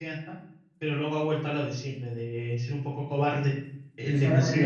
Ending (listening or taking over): taking over